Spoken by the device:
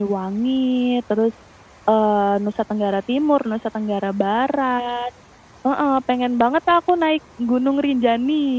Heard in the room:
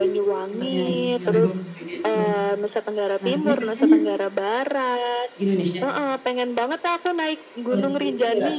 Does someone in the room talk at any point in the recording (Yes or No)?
Yes